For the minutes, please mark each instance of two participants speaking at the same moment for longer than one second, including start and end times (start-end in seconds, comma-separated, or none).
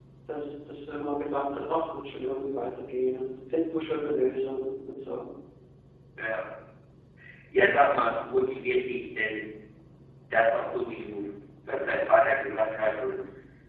none